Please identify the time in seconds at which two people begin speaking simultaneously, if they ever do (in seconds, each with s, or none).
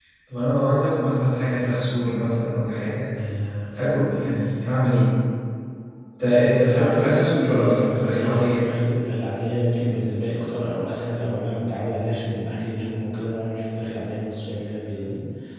6.6 s